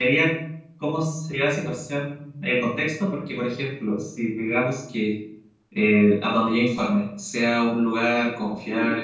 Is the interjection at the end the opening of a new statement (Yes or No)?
No